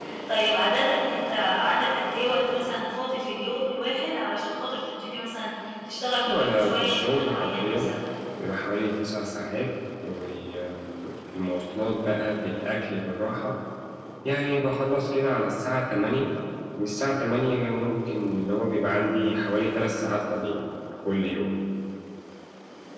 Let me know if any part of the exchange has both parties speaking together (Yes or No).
Yes